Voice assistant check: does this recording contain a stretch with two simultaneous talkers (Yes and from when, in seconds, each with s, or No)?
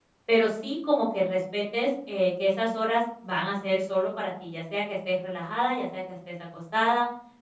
No